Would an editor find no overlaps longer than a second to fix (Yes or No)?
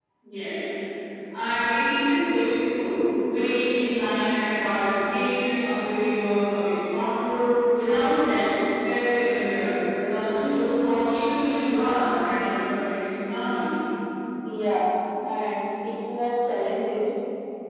Yes